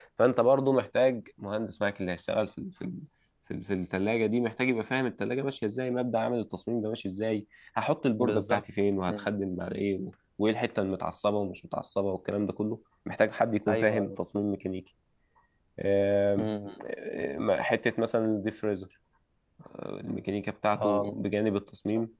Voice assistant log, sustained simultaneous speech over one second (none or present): none